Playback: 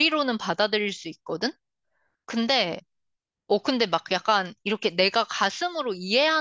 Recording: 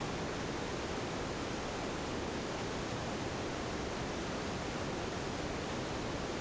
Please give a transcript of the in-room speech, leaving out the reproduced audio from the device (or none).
none